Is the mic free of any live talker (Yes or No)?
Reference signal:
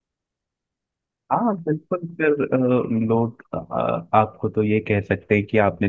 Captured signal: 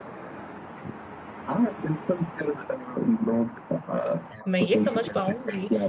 No